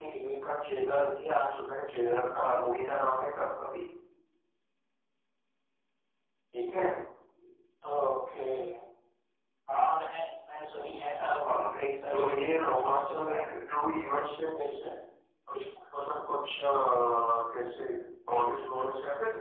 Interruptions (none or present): present